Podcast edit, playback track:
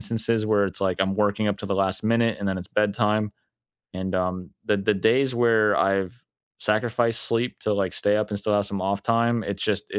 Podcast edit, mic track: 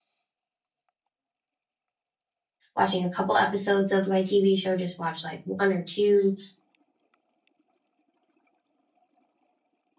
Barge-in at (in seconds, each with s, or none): 2.8 s